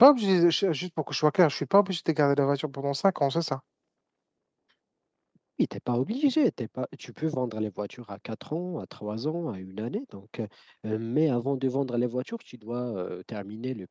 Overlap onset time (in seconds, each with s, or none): none